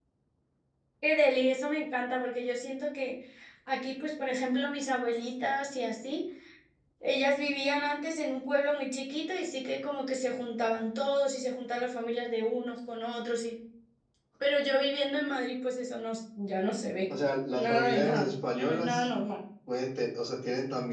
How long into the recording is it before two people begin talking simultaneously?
17.5 s

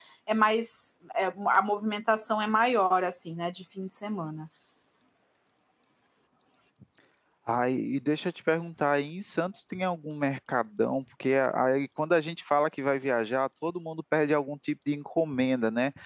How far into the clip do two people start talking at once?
none

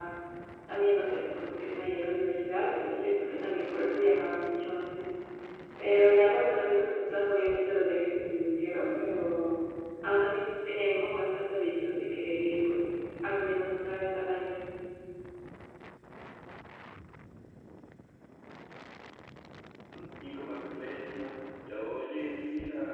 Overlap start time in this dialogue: none

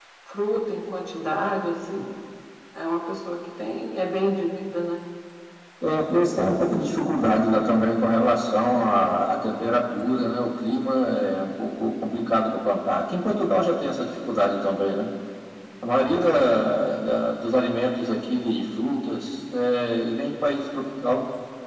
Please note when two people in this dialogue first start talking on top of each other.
none

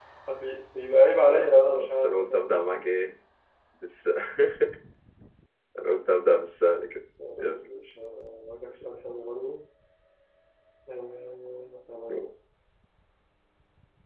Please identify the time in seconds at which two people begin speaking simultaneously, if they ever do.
1.3 s

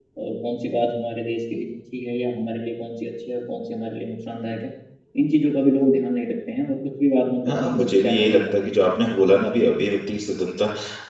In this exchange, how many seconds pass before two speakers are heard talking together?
7.5 s

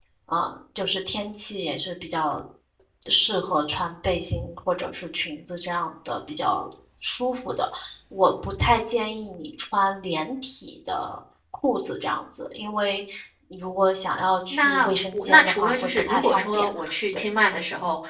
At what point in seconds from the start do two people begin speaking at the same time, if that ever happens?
14.5 s

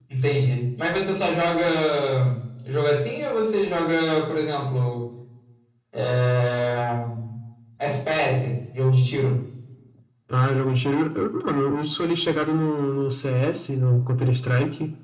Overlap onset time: none

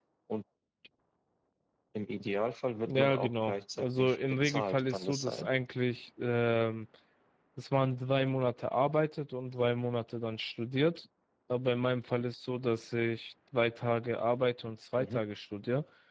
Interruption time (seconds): 2.8 s

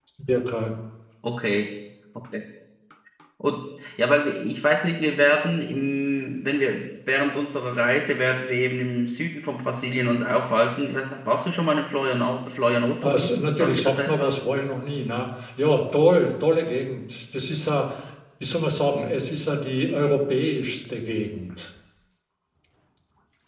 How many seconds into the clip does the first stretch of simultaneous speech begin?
13.0 s

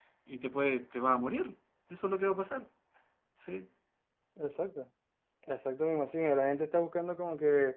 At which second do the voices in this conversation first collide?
none

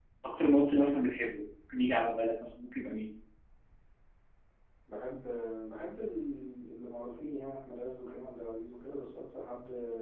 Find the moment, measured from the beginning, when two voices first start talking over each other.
none

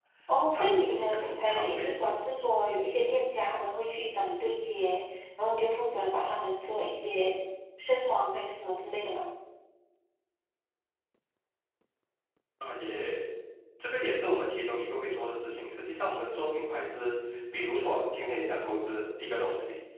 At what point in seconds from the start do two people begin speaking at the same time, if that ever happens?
0.5 s

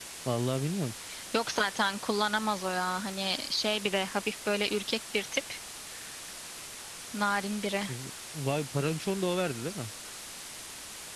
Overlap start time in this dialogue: none

